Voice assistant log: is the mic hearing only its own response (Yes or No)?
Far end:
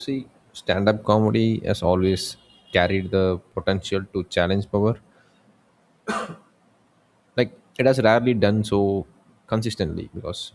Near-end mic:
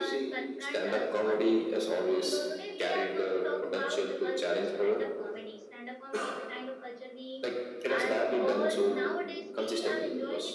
No